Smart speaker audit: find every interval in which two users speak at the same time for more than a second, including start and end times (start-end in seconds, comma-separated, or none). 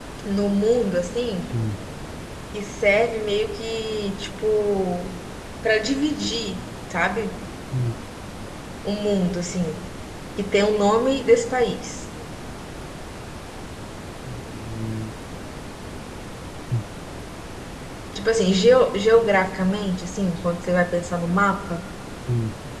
none